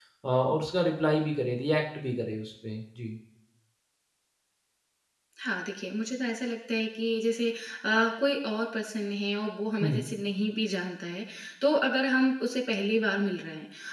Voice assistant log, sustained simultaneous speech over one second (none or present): none